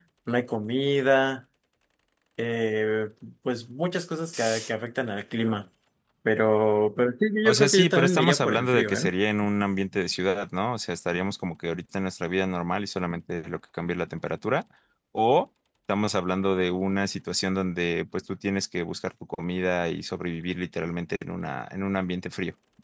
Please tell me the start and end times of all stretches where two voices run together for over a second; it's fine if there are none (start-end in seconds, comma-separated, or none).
7.5-9.1